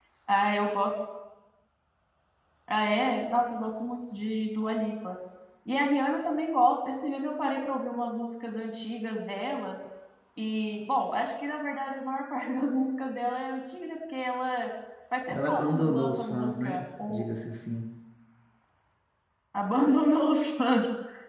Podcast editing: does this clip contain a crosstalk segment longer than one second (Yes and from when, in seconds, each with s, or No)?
Yes, from 15.3 s